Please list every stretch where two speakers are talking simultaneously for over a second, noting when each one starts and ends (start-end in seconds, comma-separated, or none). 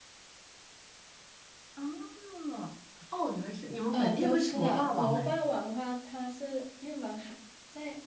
3.9-5.3